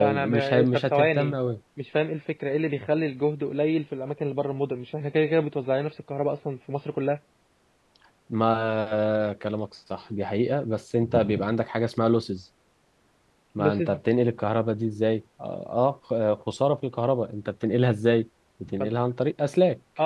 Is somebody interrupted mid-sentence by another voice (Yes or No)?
Yes